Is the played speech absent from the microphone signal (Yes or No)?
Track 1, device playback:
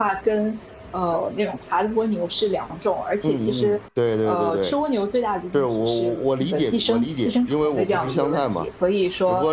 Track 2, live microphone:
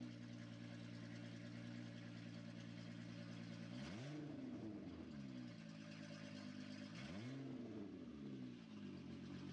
Yes